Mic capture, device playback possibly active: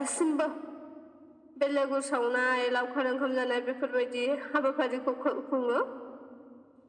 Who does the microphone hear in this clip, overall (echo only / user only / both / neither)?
echo only